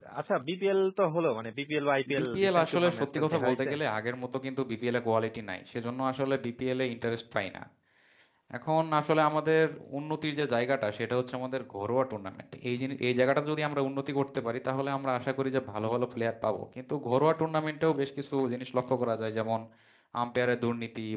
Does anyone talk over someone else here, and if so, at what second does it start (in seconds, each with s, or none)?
2.1 s